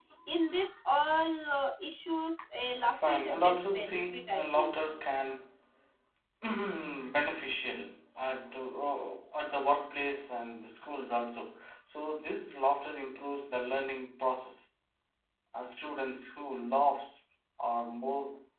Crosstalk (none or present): present